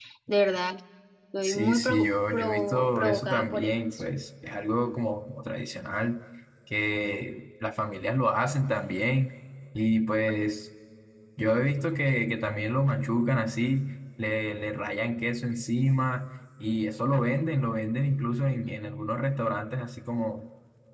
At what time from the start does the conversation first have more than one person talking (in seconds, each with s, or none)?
1.4 s